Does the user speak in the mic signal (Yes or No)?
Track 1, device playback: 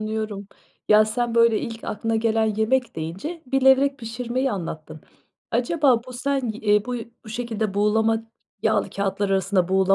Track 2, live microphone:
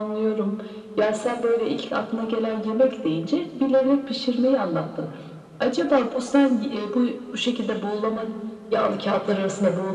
No